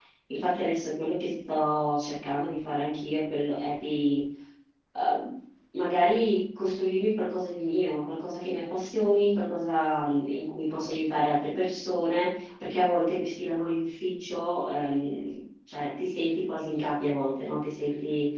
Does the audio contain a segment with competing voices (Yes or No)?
No